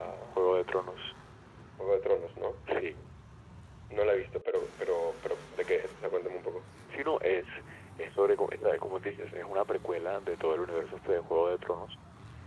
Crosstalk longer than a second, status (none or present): none